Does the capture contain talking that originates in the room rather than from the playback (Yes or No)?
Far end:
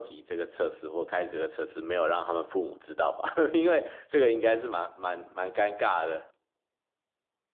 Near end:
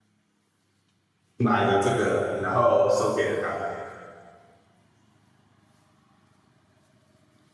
Yes